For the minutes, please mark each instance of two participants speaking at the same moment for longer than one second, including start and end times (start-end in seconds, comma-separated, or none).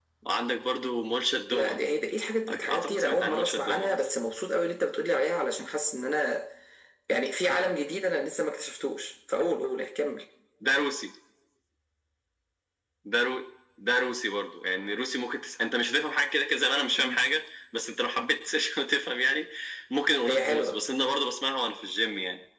2.5-4.0